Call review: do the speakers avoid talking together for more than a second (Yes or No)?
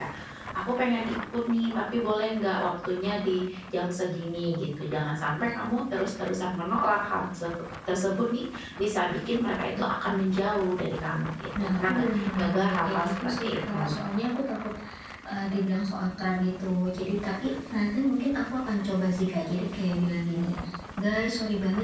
No